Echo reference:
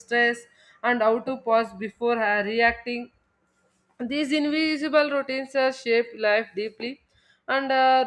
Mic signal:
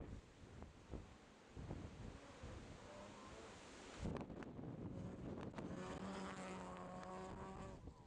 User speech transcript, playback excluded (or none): none